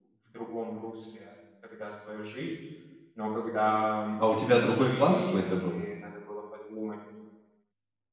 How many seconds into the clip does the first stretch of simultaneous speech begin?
4.2 s

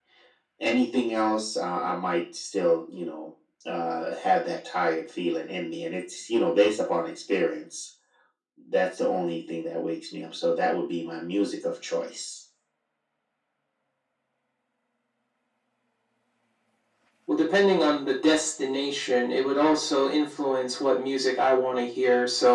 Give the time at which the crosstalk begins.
none

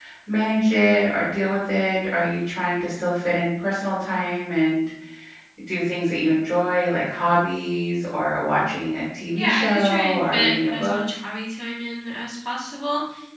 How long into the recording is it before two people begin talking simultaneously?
9.3 s

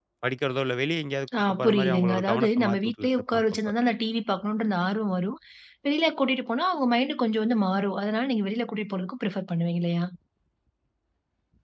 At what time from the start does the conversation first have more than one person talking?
1.3 s

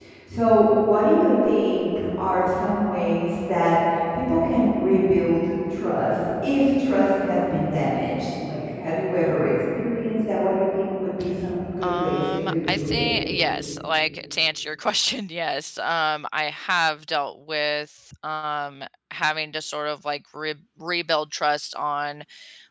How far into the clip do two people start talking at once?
11.8 s

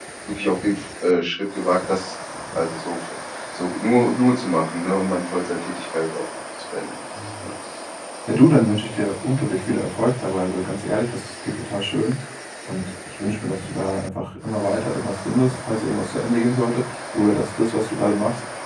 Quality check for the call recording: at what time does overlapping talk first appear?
none

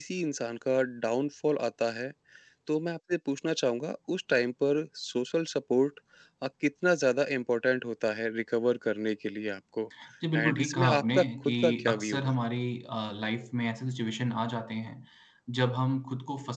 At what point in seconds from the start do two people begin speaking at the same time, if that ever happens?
10.4 s

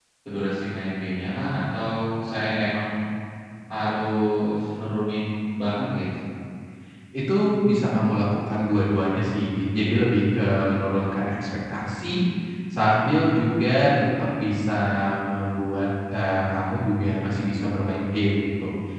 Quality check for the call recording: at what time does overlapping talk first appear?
none

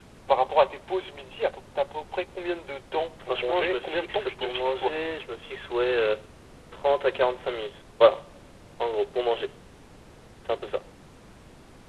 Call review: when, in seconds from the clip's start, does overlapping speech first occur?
3.3 s

